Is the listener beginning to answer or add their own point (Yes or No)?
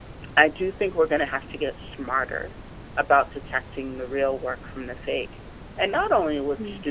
No